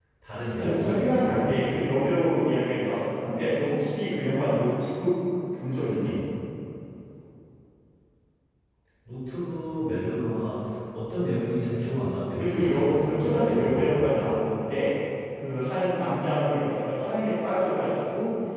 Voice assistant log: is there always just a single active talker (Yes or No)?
No